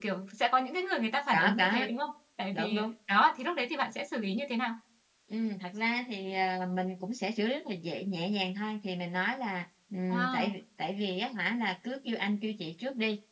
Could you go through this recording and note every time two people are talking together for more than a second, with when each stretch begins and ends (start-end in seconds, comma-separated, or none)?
none